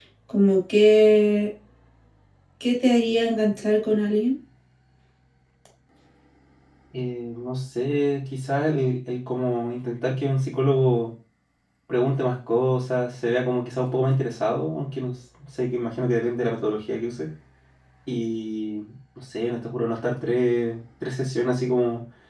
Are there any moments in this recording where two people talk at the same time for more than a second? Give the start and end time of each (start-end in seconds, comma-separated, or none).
none